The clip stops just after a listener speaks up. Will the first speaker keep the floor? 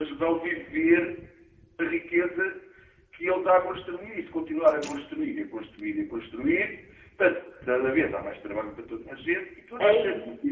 Yes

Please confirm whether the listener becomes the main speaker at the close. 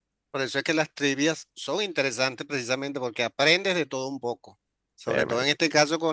No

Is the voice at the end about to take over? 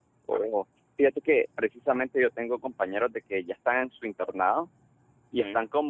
No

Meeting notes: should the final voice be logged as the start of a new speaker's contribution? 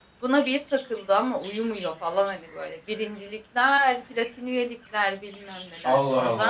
No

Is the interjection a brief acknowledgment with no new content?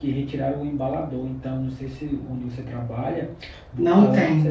Yes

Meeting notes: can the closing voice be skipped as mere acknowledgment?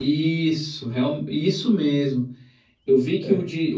Yes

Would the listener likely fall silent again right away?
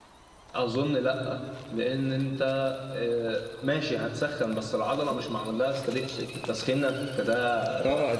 No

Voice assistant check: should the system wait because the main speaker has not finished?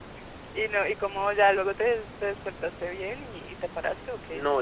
No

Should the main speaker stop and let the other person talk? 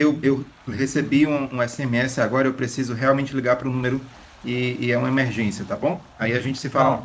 Yes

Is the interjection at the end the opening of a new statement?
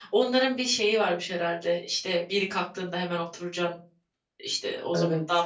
No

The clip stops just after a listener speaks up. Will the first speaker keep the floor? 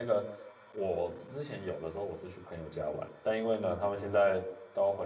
Yes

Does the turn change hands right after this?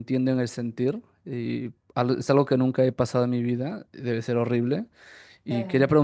No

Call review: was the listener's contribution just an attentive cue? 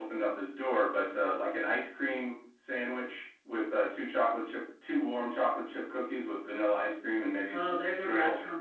No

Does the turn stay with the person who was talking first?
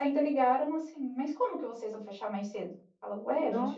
Yes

